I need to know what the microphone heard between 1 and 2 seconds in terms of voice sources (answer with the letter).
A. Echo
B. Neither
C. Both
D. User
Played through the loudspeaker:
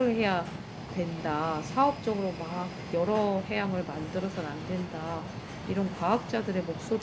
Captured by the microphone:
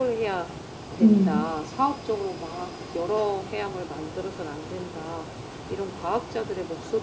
C